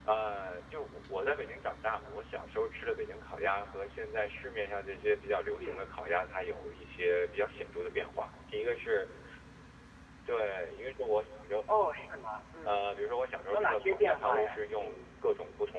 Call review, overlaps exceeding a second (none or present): present